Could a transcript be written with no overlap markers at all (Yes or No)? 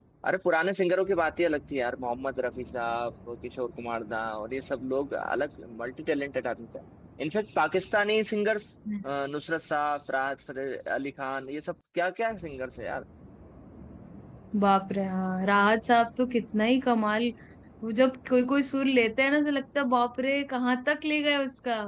Yes